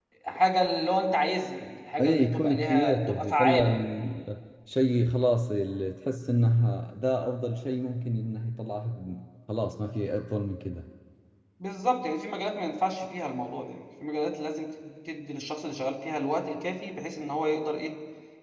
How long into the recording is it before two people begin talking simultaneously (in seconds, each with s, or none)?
2.0 s